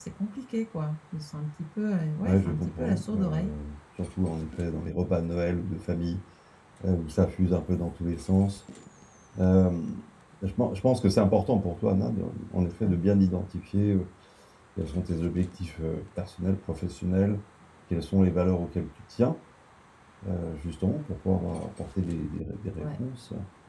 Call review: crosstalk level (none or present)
present